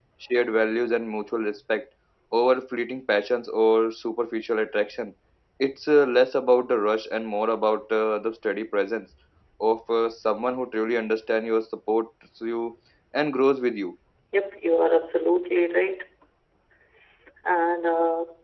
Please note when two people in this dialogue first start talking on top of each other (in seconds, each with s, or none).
none